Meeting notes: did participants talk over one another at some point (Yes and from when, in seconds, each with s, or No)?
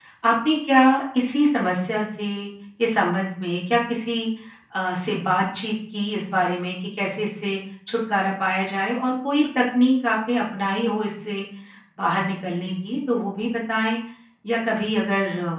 No